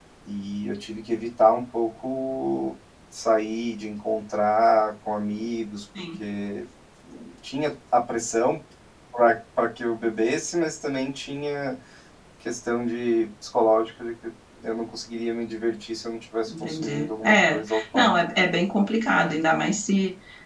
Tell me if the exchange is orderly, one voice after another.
No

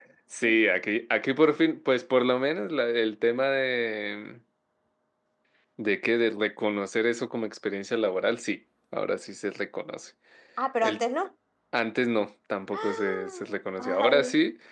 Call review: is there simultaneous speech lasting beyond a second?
Yes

